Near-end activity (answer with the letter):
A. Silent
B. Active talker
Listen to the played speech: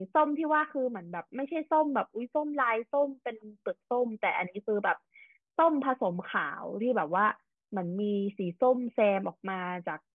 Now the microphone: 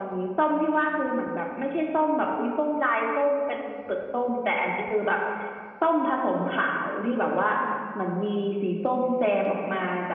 A